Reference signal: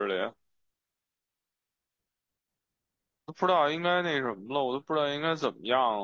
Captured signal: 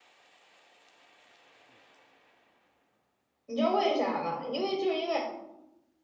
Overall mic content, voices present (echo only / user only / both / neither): user only